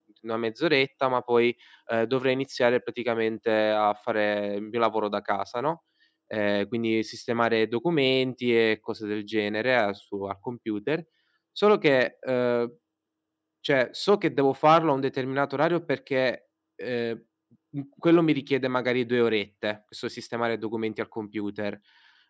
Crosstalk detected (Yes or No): No